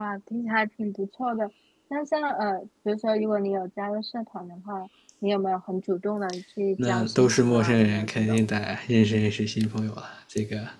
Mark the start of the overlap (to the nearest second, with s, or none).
7 s